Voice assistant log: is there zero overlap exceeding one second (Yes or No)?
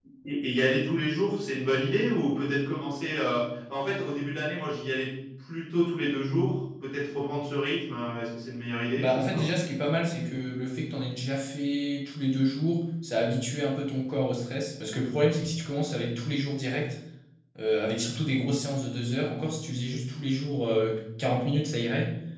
Yes